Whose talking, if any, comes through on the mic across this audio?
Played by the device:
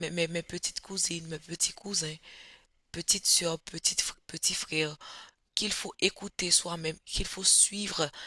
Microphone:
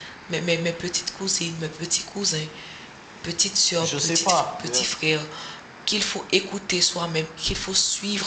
both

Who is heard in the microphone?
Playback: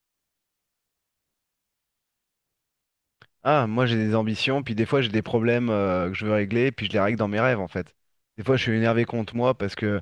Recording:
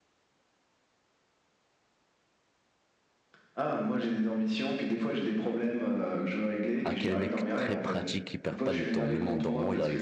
both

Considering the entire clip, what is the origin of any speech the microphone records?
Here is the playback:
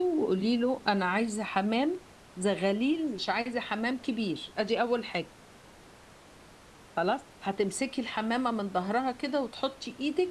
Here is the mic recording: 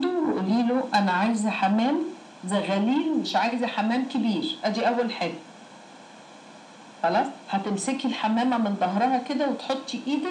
echo only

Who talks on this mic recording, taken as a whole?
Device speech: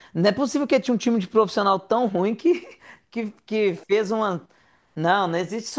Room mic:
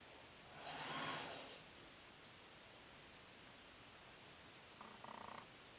neither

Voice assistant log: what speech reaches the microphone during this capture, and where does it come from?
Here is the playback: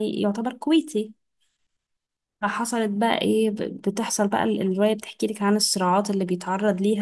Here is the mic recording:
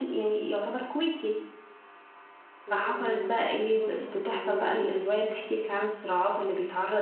both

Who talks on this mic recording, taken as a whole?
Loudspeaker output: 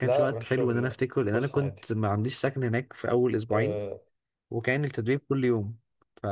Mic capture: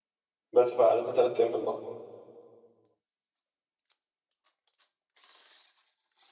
user only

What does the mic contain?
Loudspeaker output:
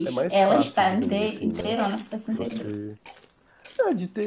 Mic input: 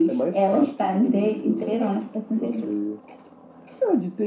echo only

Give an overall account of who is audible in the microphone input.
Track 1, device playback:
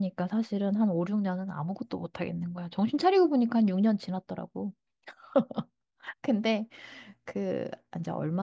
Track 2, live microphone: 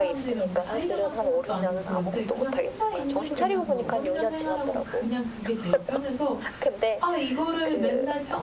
both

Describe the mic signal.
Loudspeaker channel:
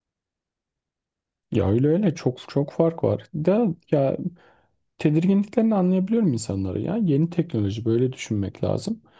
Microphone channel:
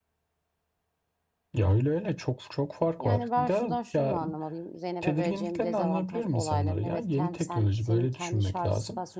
both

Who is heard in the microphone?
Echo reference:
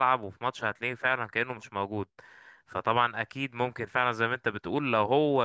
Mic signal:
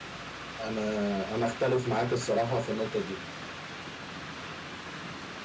user only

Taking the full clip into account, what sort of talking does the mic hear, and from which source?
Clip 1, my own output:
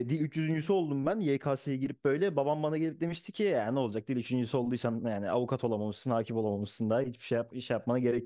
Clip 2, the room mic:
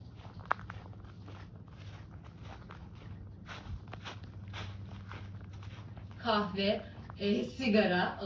user only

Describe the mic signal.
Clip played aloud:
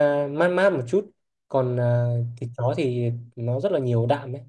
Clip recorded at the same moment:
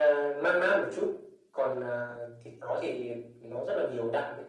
echo only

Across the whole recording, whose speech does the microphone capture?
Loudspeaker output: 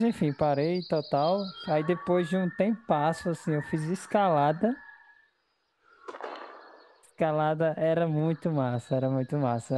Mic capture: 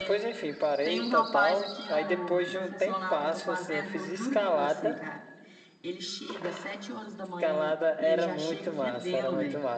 both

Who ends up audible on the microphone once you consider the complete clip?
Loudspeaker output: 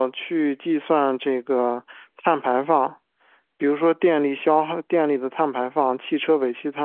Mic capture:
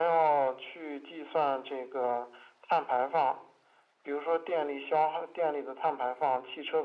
echo only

